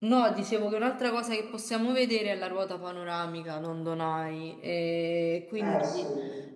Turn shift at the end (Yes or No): No